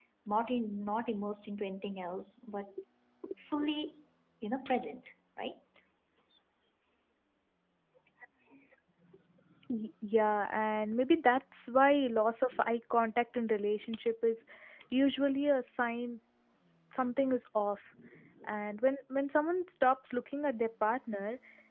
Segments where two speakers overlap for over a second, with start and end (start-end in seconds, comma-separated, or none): none